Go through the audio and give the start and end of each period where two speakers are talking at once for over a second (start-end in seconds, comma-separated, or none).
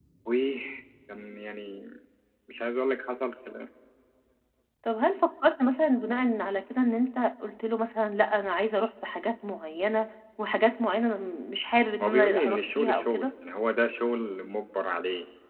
12.0-13.3